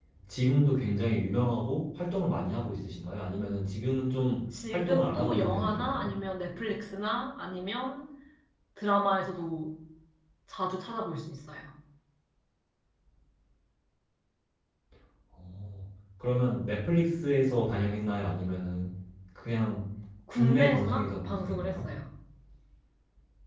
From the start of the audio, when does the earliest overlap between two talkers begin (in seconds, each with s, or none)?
4.7 s